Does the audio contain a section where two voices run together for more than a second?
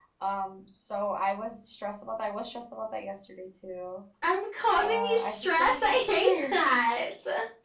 Yes, from 4.8 s

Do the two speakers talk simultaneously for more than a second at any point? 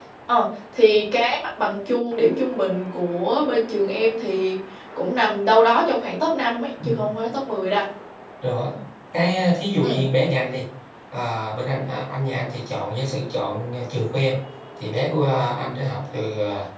No

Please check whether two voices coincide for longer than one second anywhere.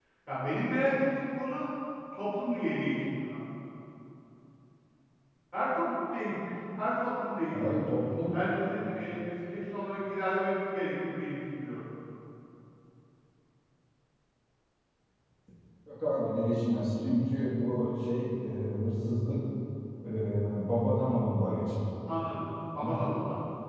No

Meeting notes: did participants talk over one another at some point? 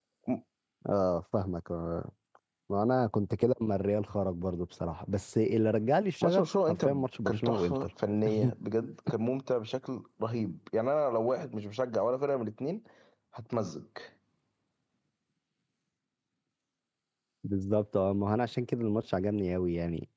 Yes, from 6.2 s

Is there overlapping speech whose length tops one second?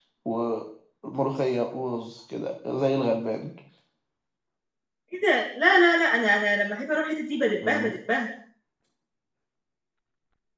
No

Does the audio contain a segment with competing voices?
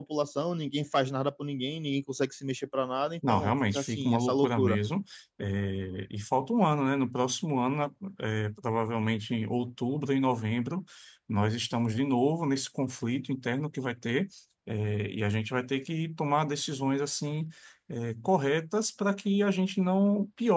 Yes, from 3.2 s

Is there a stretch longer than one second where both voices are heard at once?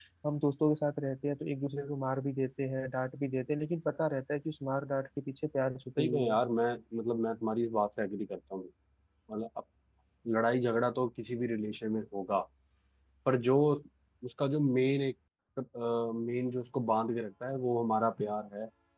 No

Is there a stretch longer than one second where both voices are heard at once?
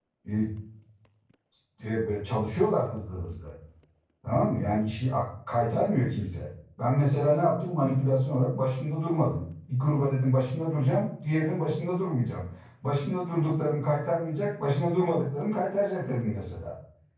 No

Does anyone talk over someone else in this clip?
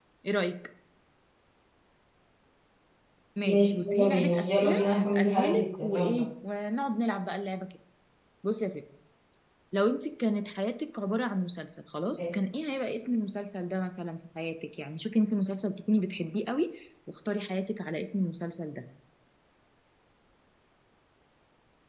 Yes, from 3.4 s

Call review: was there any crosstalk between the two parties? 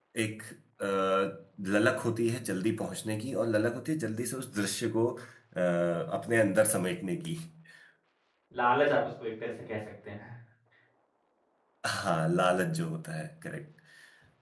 No

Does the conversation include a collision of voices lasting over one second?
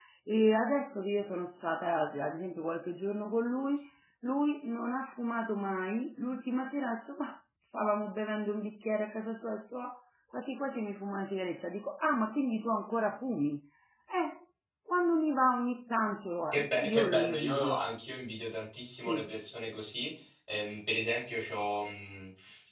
Yes, from 16.5 s

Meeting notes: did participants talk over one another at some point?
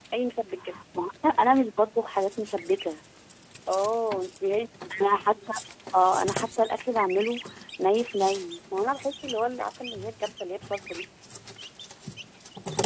No

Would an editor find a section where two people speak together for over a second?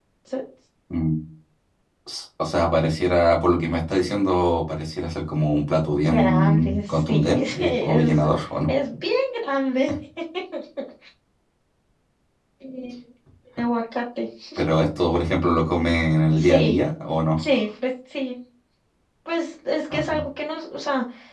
Yes, from 6.0 s

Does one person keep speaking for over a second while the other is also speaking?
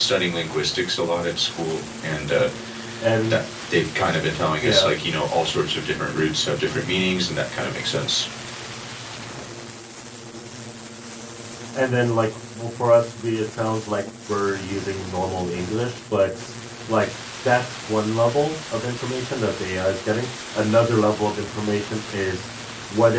No

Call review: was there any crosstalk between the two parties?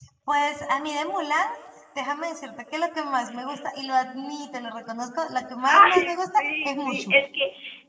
Yes, from 5.6 s

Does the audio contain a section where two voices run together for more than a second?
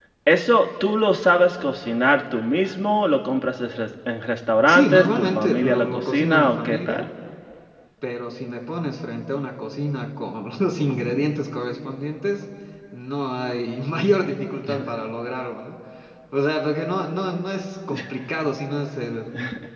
Yes, from 4.6 s

